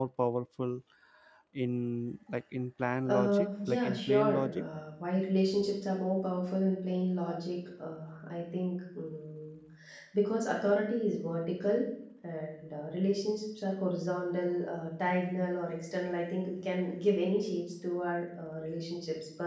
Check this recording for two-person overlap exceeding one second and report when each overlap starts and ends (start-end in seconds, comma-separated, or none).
3.1-4.6